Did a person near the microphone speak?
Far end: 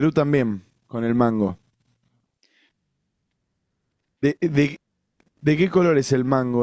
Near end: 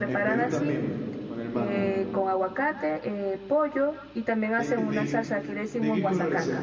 Yes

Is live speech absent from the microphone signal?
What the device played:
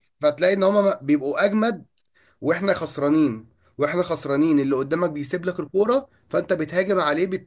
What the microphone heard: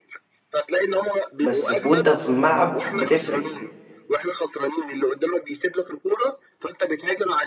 No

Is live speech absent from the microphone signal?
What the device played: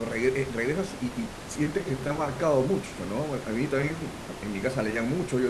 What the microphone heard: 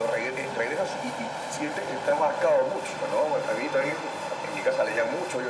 Yes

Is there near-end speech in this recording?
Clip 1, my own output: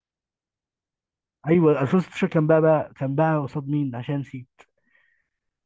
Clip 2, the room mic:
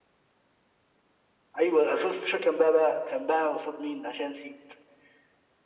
No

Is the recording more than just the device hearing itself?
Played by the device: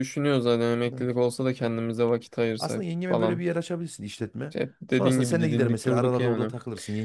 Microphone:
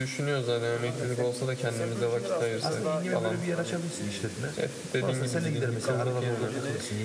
Yes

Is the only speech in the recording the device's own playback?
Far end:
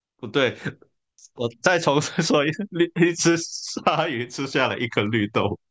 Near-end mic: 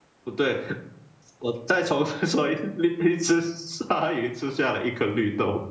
Yes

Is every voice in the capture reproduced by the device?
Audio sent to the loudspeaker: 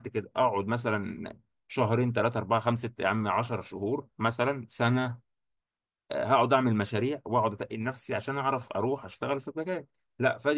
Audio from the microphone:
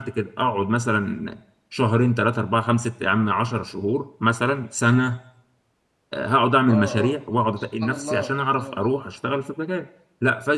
No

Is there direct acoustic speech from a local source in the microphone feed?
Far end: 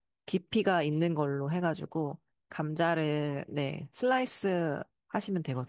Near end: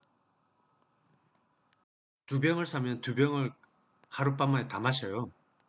Yes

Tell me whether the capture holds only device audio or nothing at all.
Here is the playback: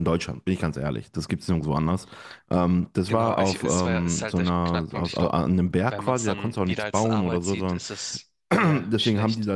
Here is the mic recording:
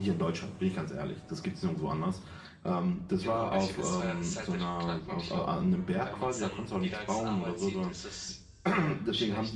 Yes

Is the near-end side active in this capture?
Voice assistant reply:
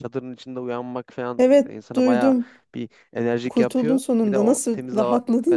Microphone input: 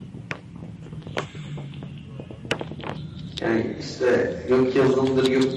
Yes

